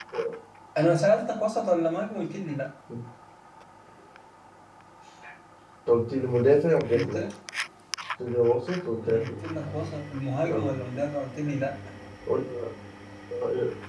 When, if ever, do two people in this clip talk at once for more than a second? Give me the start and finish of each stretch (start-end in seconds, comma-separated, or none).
none